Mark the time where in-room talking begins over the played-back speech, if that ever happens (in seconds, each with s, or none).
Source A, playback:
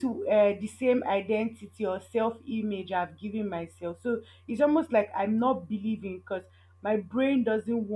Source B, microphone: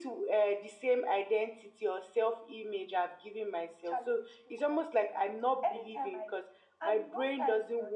3.9 s